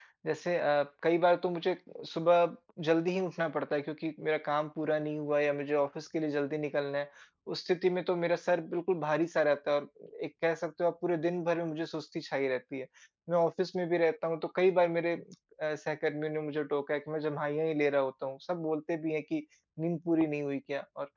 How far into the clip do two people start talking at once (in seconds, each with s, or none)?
none